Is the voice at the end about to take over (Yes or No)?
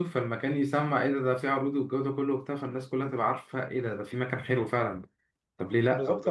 Yes